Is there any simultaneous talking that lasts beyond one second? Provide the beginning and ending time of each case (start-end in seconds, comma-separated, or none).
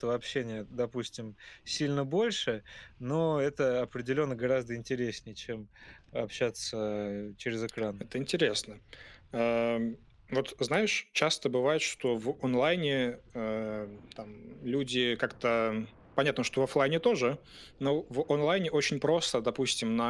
none